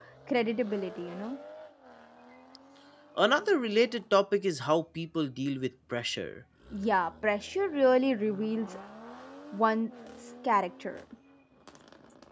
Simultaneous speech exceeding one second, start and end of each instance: none

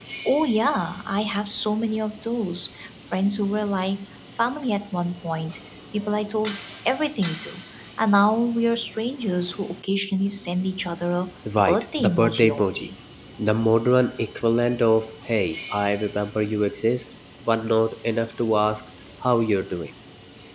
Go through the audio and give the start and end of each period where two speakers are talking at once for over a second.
11.6-12.9

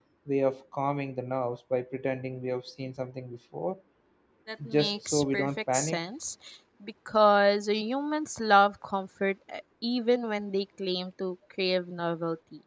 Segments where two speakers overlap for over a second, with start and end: 4.7-6.0

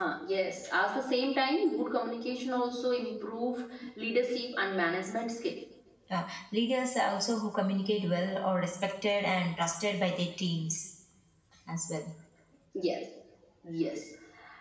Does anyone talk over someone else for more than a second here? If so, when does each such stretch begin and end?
none

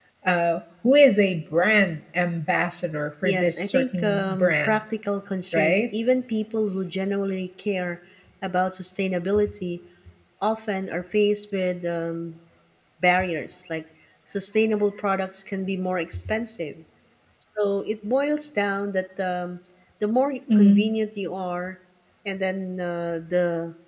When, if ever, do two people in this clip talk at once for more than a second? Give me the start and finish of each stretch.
3.2-4.8

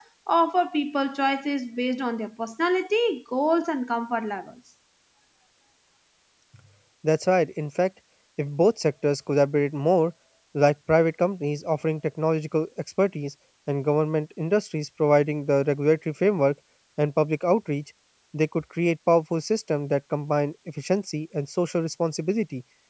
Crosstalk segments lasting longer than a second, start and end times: none

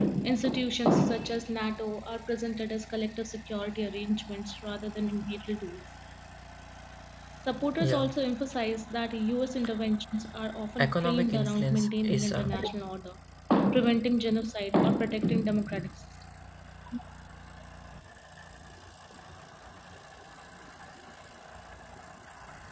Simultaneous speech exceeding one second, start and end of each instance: 10.8-12.5

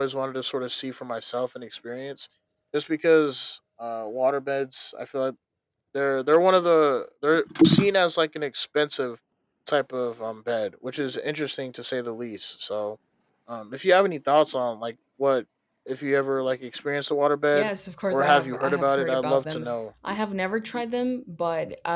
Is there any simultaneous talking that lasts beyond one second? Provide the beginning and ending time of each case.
18.1-19.7

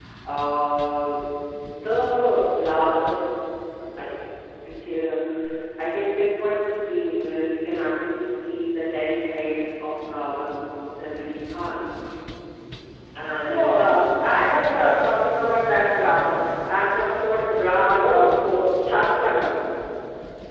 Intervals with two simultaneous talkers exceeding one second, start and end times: 13.3-14.5

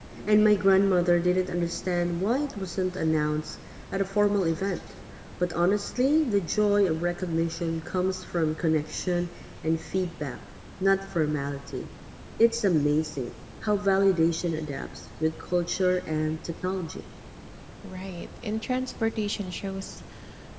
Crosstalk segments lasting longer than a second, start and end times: none

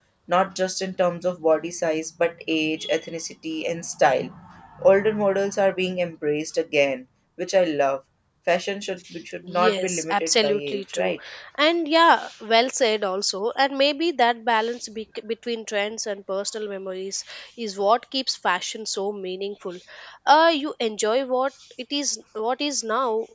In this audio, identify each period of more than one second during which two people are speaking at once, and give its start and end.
9.4-11.1

